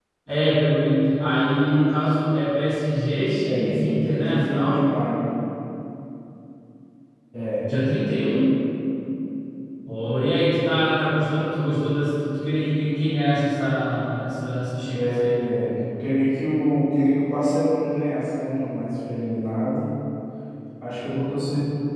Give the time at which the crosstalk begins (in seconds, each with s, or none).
3.4 s